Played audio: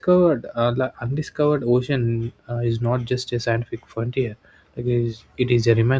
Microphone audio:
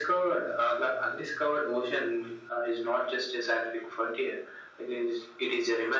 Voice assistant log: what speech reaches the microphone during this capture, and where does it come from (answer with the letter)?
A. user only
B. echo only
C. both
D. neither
B